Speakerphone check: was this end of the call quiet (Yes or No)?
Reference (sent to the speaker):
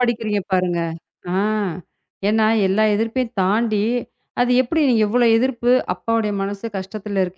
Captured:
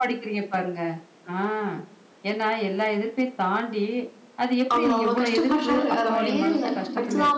No